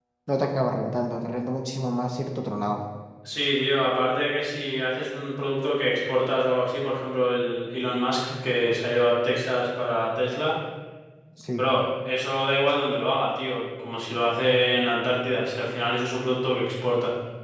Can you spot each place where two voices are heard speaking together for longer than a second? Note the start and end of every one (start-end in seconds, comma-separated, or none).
none